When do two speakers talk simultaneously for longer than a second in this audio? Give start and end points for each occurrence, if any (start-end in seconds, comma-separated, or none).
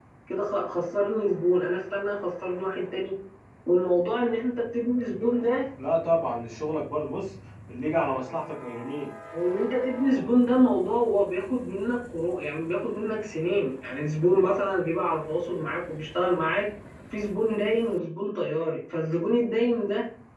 none